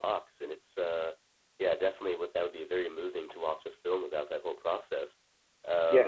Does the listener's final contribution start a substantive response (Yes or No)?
Yes